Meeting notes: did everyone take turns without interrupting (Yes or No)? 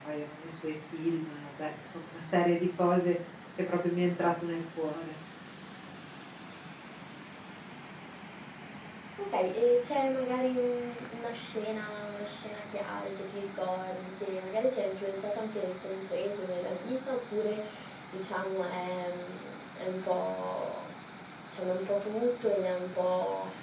Yes